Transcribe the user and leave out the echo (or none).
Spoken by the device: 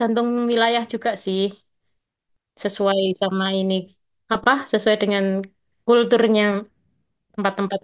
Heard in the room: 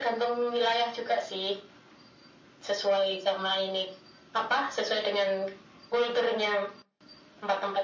none